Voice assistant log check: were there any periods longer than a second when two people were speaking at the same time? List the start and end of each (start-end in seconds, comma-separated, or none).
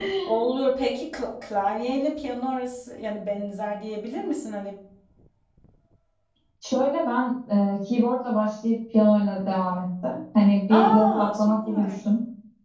10.7-11.9